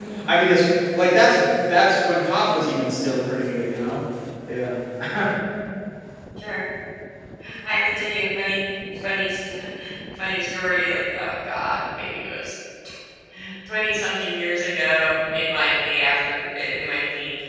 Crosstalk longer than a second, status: none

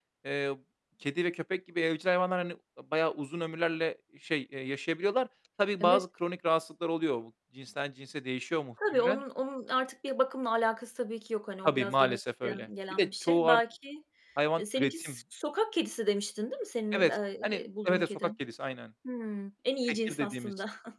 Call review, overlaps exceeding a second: present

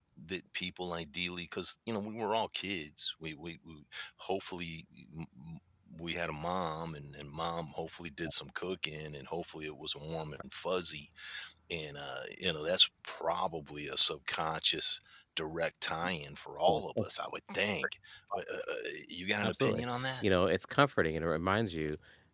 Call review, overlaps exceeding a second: none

